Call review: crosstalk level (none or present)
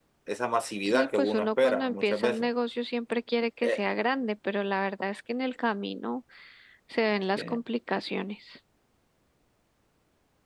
present